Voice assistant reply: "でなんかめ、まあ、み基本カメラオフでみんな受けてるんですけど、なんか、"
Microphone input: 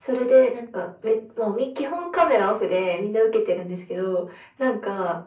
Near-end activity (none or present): none